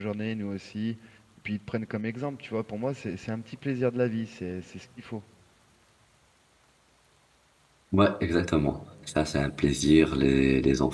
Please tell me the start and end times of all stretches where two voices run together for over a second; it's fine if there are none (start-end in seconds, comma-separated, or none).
none